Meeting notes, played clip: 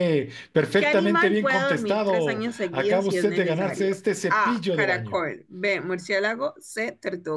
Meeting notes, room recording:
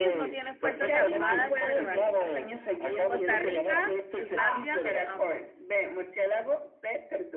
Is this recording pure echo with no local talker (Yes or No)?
No